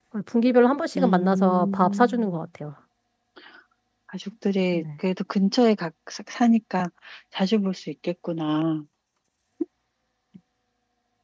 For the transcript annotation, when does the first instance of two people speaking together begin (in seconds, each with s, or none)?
1.0 s